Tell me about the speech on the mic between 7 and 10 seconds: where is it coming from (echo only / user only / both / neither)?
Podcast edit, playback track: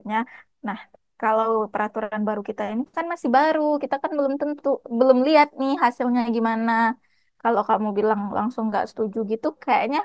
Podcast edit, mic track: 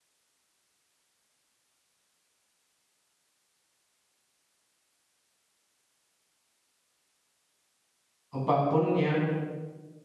user only